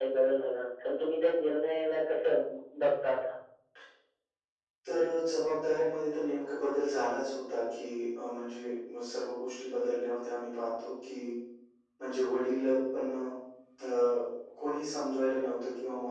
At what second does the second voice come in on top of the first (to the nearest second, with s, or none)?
none